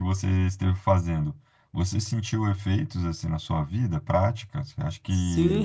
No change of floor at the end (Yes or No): No